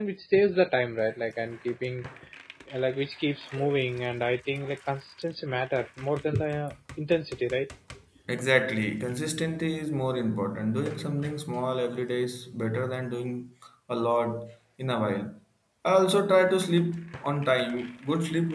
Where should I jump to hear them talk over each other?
none

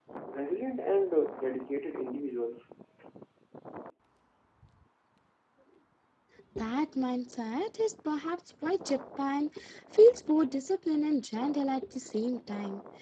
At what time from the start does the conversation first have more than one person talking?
none

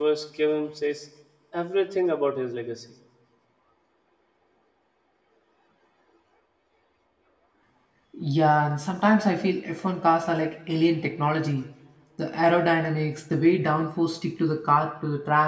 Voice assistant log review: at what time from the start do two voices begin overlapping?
none

